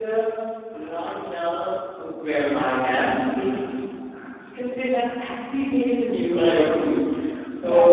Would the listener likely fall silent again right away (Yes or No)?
Yes